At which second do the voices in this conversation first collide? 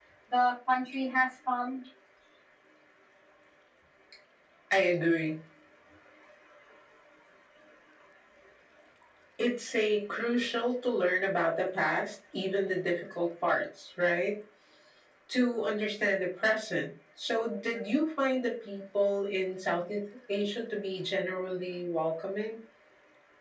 none

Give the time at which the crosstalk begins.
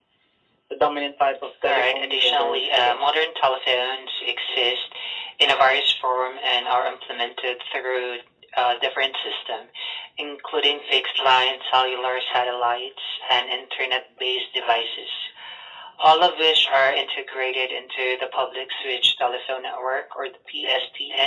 1.6 s

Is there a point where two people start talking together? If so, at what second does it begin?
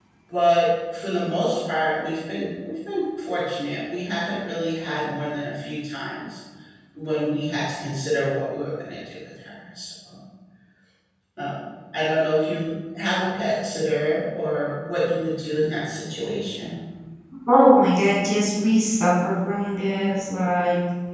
none

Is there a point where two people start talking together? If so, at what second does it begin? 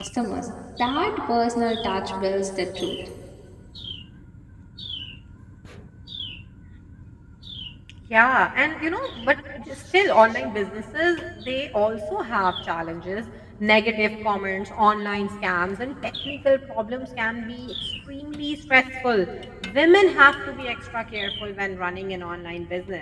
none

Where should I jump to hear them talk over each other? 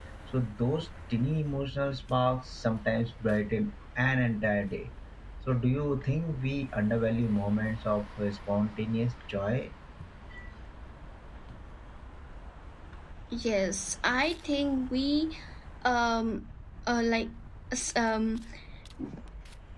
none

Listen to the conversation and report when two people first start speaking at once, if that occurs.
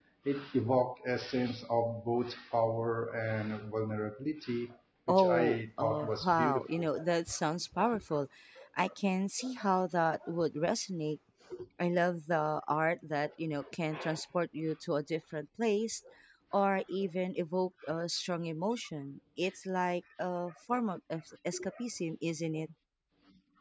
5.1 s

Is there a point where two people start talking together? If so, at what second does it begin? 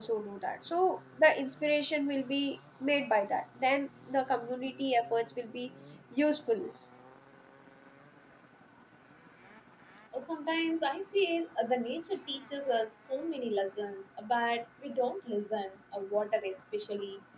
none

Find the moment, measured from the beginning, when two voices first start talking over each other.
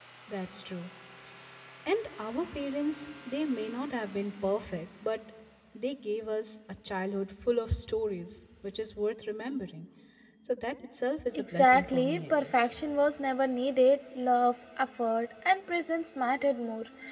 11.3 s

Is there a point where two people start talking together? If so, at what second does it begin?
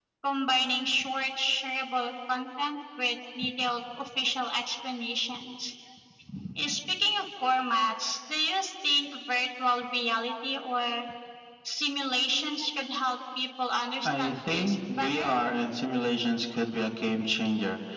14.0 s

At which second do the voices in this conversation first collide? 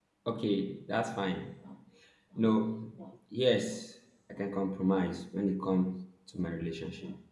none

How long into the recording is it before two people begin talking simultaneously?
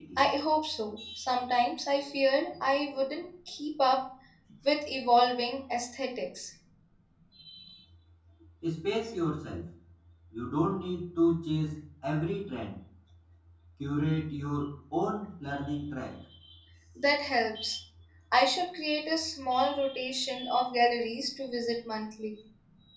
none

